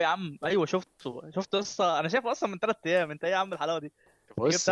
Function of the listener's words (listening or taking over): listening